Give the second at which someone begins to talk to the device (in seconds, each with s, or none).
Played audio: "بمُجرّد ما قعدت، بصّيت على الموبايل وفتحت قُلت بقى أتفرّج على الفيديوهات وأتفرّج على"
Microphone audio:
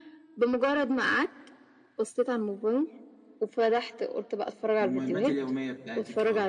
4.8 s